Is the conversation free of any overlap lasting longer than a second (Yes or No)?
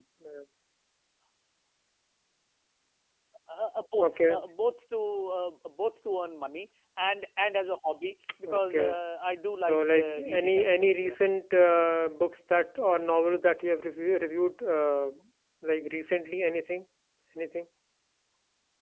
No